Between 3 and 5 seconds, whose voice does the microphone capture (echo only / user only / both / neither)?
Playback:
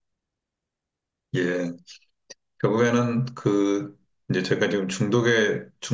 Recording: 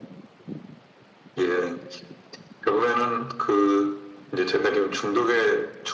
echo only